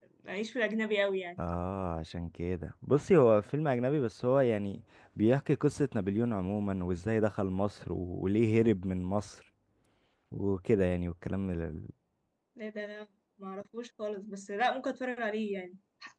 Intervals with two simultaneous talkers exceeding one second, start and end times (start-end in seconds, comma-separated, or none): none